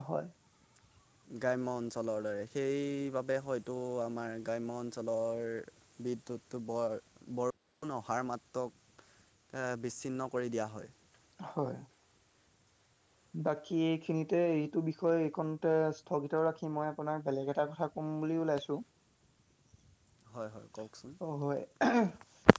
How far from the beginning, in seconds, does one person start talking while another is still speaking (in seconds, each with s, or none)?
none